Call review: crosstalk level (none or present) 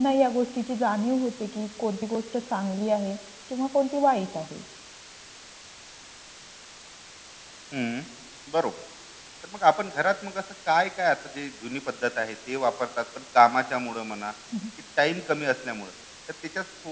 none